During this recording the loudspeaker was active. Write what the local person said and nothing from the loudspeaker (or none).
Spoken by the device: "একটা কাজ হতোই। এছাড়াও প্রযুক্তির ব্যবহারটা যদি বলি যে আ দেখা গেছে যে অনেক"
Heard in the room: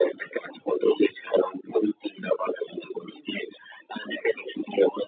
none